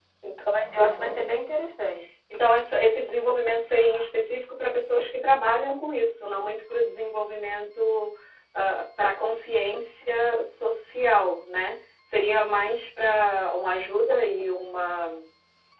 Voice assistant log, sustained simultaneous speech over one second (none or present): none